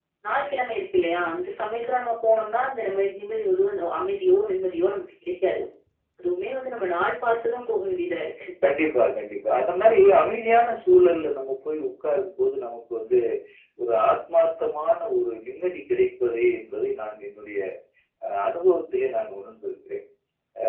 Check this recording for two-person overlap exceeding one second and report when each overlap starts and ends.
none

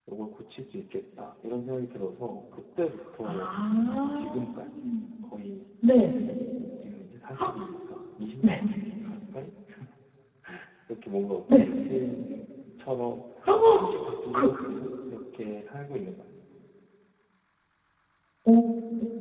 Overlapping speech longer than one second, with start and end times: none

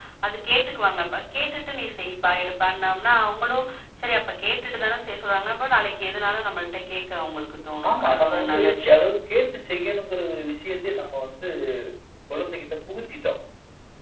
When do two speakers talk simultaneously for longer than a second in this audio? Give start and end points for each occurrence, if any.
7.9-9.1

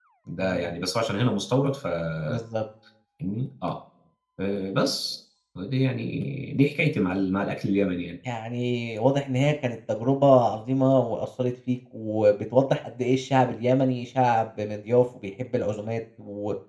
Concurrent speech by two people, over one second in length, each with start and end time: none

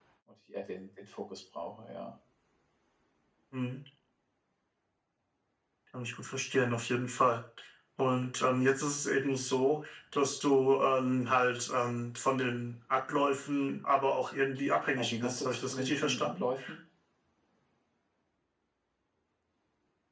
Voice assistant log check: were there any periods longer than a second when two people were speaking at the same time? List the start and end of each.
14.9-16.4

